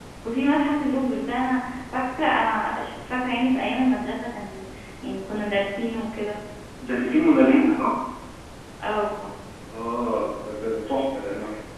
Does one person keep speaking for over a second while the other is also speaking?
No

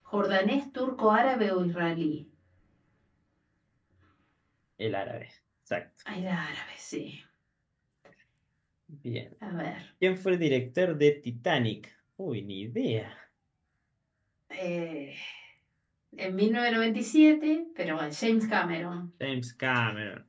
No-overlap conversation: Yes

